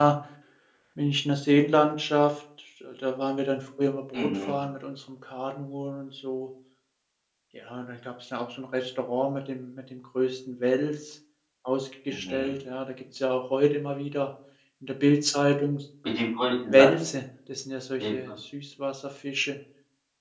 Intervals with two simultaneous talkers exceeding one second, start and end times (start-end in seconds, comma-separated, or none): none